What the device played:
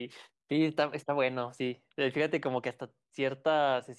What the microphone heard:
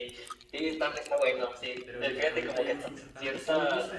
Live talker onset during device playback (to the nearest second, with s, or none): 2 s